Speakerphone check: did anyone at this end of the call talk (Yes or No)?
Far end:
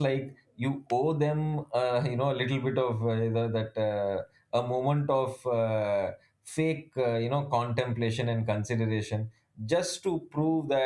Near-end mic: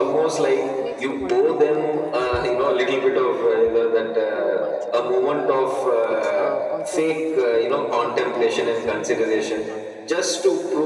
Yes